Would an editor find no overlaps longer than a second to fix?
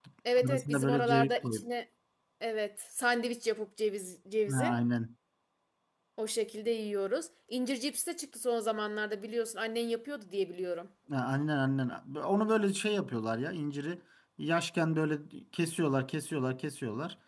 No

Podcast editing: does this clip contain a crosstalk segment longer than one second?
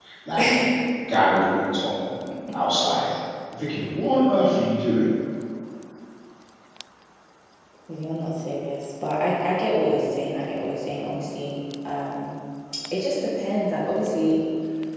No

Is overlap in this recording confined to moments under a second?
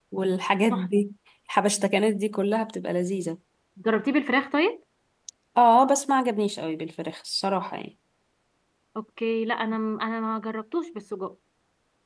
Yes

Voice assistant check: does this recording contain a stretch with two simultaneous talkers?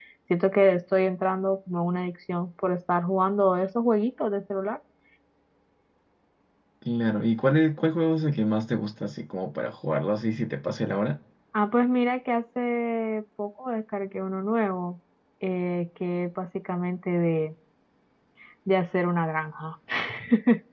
No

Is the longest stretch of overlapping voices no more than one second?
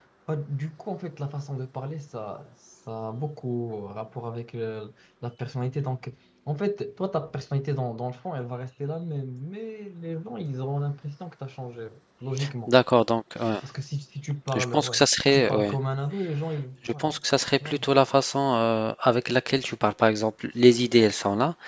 No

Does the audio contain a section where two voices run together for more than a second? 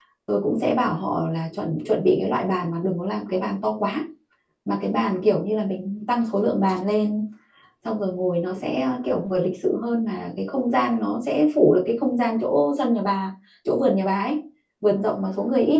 No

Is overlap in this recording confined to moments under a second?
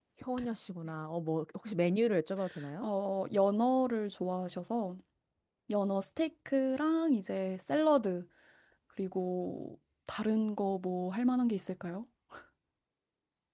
Yes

